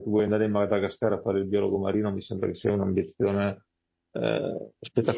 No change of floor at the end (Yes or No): No